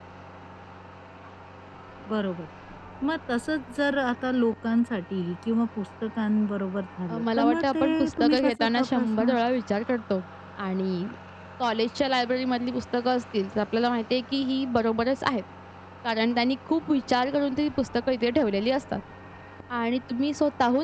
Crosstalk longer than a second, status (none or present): present